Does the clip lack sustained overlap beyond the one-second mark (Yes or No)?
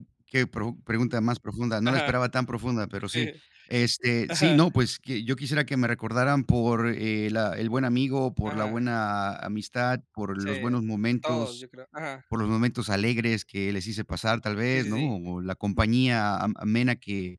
Yes